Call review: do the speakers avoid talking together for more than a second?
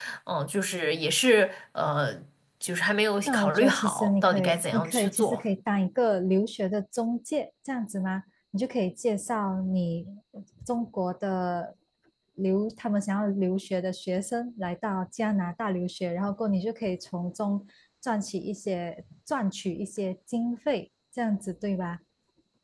No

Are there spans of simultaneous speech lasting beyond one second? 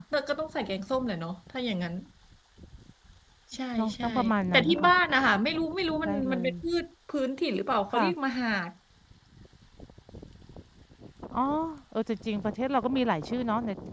No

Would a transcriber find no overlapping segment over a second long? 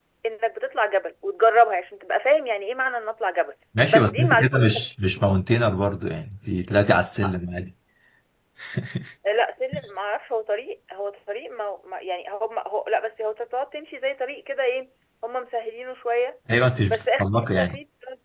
No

